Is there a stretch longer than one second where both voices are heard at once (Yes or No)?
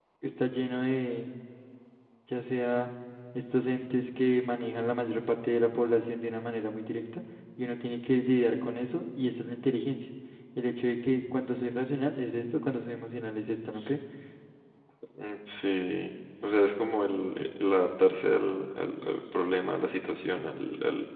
No